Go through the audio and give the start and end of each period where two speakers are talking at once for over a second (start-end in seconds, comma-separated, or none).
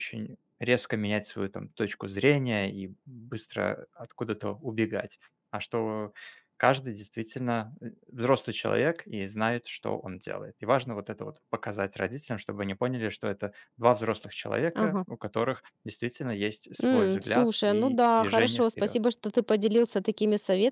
16.8-19.0